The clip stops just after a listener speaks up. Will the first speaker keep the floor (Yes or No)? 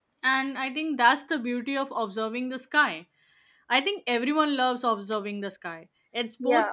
Yes